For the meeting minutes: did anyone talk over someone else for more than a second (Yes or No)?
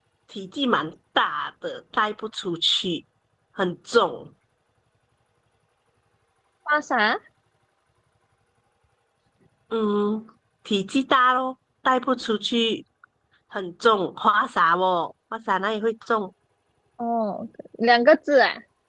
No